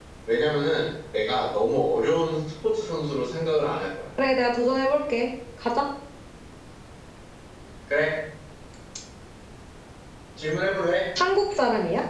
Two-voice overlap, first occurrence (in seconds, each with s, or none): none